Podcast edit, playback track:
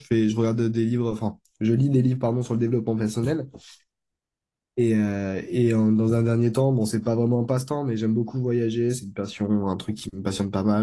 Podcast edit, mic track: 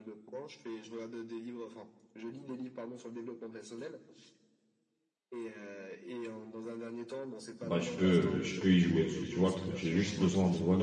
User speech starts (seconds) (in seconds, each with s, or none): 7.6 s